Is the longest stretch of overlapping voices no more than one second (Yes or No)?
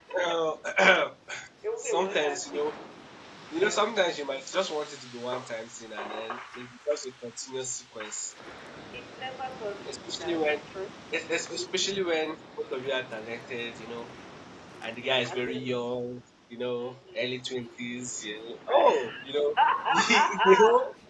No